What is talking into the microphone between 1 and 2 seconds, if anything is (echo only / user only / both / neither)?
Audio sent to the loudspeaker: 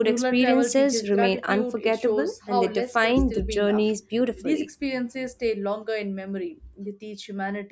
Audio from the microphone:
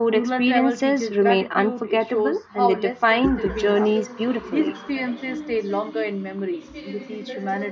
echo only